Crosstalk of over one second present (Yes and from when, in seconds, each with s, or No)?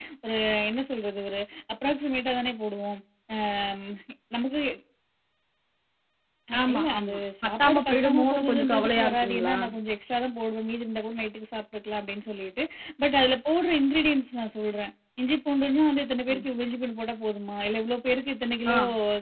Yes, from 6.7 s